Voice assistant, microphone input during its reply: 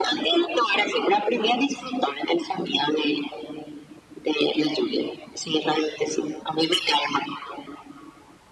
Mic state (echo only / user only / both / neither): echo only